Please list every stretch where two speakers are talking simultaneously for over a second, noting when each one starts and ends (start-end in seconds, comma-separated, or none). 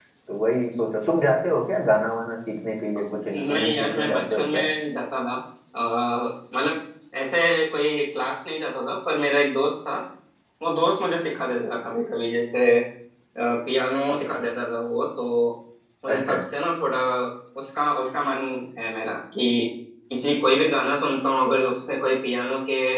3.3-4.7